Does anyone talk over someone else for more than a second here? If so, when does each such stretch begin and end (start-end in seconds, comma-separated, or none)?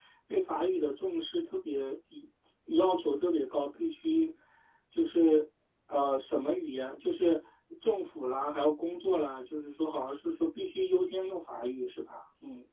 none